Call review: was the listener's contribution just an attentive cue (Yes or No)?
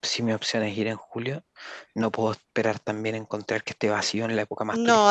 No